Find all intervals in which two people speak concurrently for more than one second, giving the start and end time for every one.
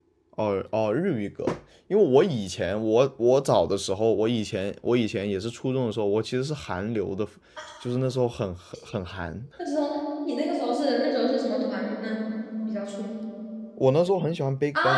none

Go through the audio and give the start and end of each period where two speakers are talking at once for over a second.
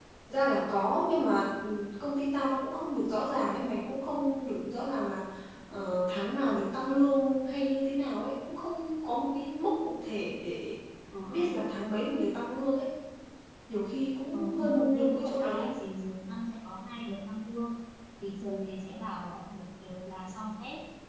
14.3-15.7

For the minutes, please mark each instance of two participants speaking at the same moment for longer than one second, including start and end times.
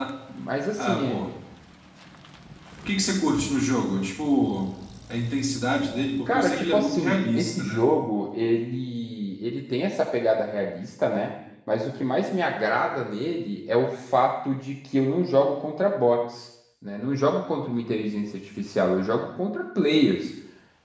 6.3-7.9

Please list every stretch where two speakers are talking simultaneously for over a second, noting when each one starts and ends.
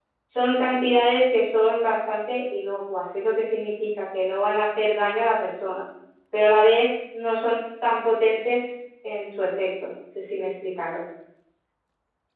none

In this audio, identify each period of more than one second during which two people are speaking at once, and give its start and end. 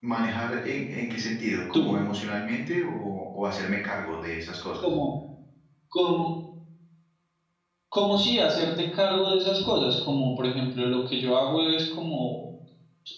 none

